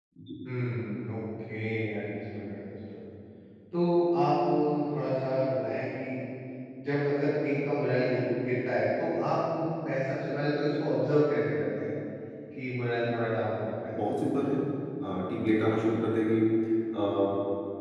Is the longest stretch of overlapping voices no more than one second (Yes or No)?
Yes